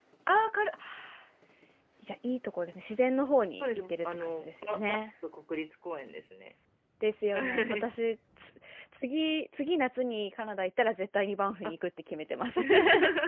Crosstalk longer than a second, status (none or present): present